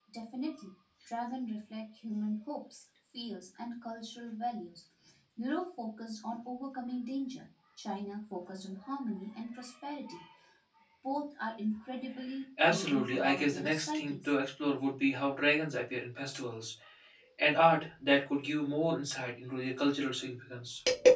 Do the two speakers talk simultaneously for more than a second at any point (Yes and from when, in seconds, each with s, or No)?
Yes, from 12.6 s